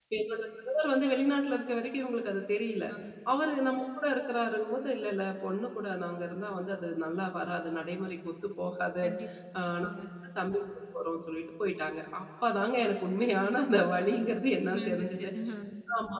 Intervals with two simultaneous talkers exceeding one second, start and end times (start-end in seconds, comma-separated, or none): none